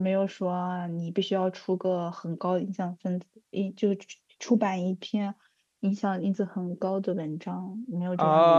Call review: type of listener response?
taking over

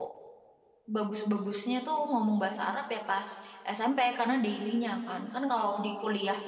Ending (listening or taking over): listening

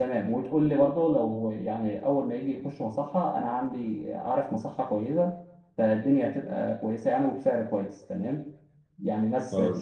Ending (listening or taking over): listening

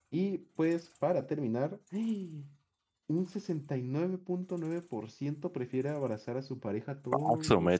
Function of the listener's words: taking over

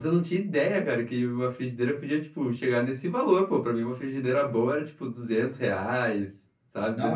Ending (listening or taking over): taking over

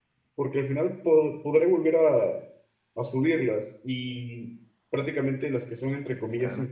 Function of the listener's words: listening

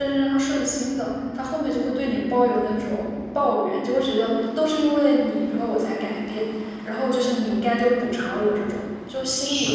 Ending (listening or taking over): taking over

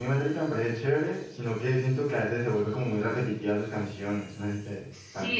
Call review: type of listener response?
taking over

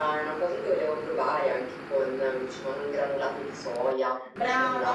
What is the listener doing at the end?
taking over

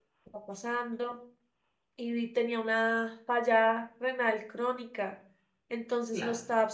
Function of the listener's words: listening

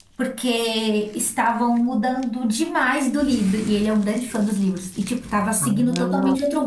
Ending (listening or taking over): taking over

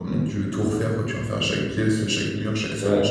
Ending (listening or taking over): taking over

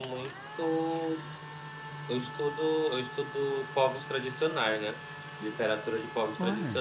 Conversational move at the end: listening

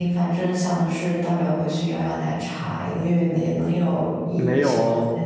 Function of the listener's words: taking over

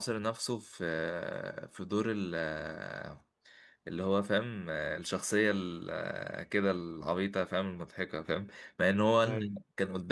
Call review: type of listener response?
listening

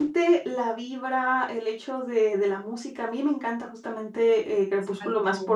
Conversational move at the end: listening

